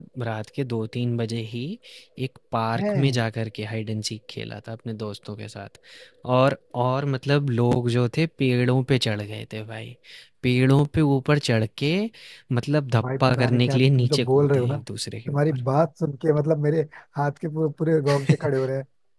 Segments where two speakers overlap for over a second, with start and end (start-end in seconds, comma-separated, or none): 13.0-14.8